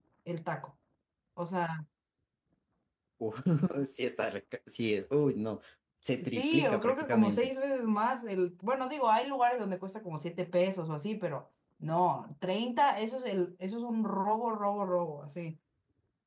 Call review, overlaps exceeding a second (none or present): present